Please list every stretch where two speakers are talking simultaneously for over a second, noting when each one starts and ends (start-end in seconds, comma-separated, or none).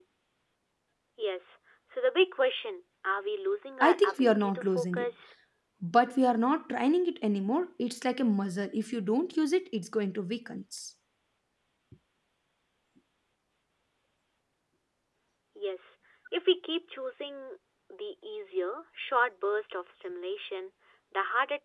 3.8-5.1